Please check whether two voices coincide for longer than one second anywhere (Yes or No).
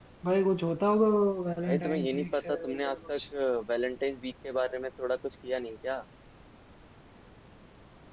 Yes